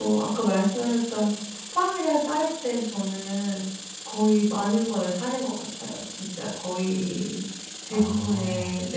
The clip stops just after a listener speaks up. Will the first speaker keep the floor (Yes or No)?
Yes